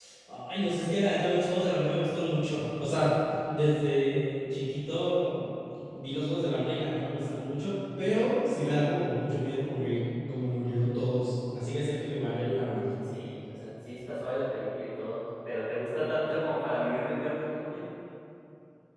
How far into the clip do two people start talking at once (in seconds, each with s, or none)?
none